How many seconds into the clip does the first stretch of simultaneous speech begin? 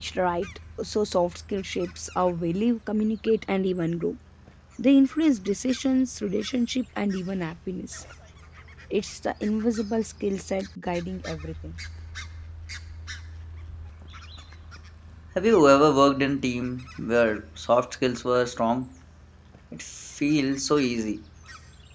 none

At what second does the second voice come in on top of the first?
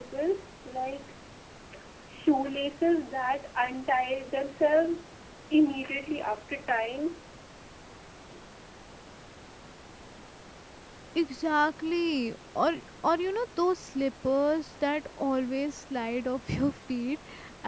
none

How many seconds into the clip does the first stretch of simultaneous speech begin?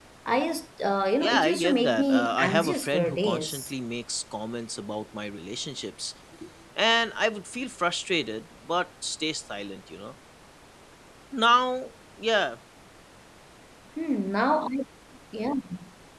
1.2 s

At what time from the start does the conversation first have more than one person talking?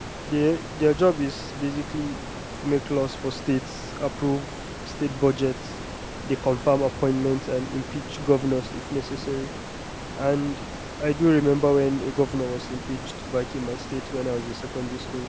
none

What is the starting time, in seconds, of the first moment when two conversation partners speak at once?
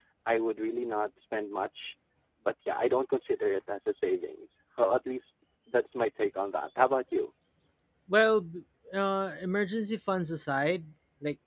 none

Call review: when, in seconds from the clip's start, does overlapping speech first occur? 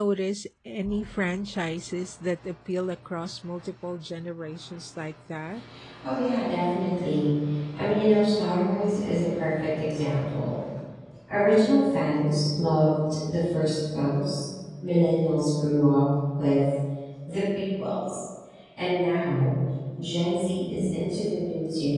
none

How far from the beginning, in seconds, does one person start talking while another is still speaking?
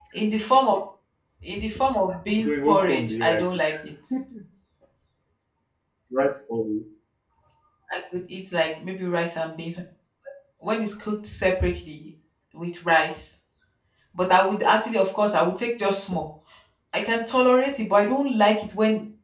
2.3 s

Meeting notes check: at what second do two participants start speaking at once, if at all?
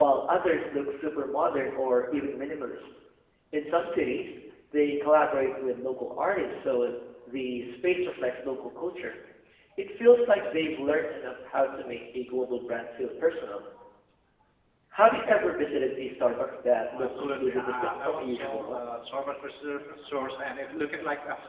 16.8 s

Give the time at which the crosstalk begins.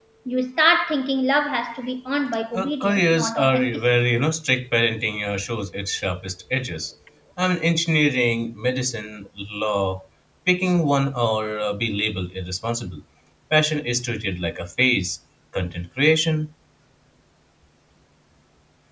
2.5 s

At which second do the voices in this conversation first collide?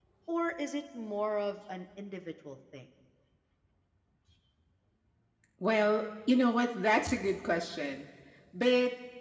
none

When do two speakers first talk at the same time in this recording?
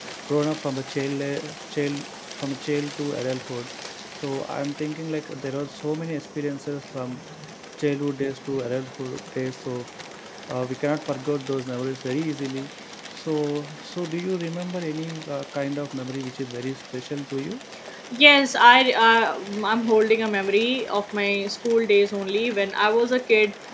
none

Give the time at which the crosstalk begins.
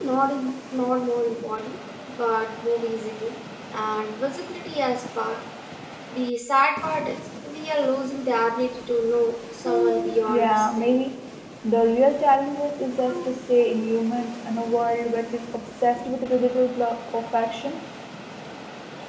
9.7 s

